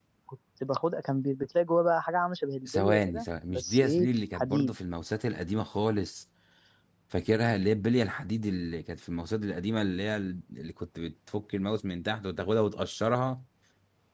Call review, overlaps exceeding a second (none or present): present